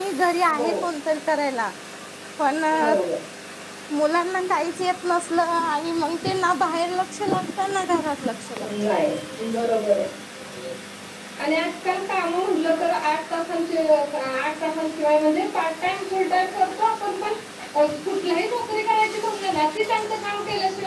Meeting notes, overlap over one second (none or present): none